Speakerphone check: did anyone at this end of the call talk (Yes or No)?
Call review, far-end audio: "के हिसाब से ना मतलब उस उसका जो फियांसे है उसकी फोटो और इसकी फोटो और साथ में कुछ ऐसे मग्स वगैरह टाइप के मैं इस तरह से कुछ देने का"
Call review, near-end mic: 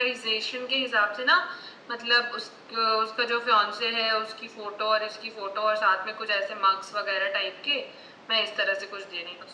No